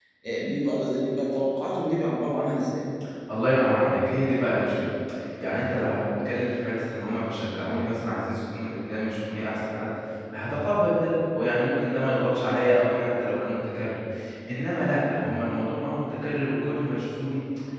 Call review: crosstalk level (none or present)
none